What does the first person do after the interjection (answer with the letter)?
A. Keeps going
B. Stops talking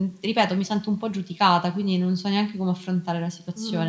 B